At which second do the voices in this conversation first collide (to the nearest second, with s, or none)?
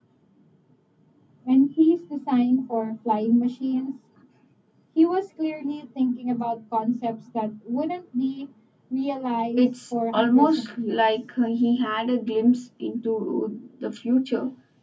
10 s